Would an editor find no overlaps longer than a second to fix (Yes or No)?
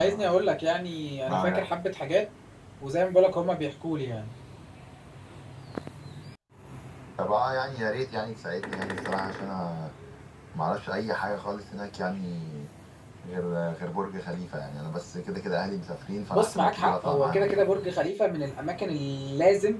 No